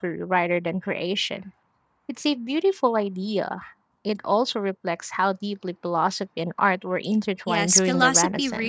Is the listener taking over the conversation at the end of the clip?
Yes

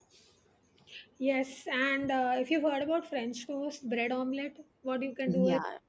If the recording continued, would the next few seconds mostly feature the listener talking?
No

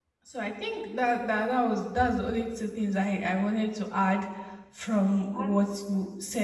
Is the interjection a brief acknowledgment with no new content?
Yes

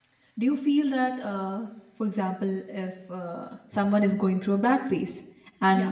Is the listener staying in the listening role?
Yes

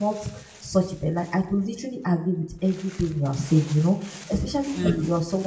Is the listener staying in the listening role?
Yes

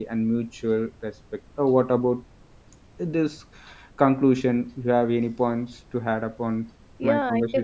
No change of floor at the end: No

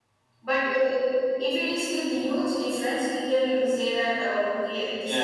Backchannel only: No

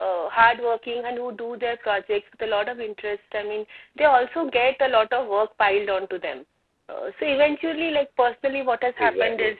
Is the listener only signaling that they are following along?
Yes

